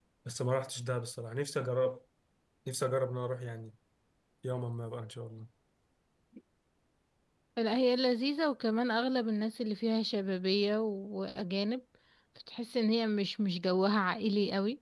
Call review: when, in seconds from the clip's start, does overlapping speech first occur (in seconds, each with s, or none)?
none